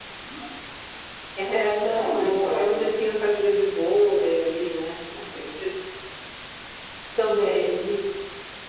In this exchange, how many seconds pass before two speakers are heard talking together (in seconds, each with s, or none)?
1.5 s